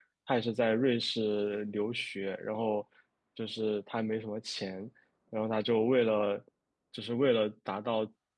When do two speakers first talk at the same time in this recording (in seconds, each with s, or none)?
none